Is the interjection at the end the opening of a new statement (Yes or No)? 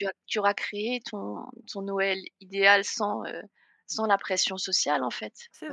Yes